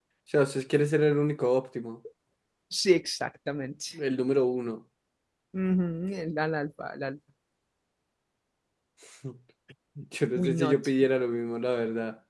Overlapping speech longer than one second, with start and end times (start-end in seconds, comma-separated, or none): none